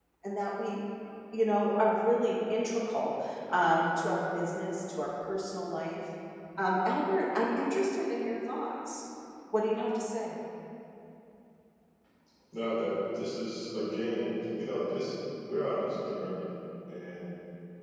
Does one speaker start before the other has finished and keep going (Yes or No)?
No